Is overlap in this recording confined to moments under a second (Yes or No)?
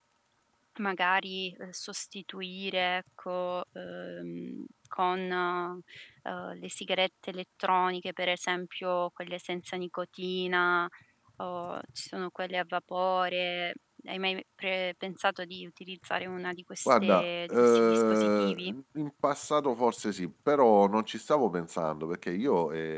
No